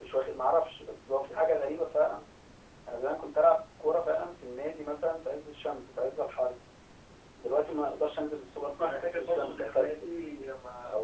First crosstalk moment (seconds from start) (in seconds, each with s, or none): 8.8 s